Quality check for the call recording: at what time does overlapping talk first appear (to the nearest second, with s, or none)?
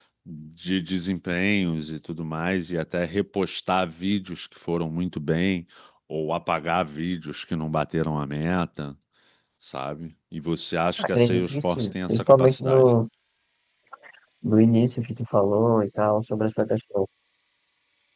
11 s